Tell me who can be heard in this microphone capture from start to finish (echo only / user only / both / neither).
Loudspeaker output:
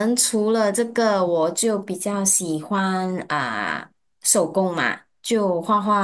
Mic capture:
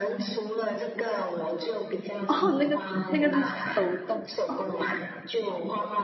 both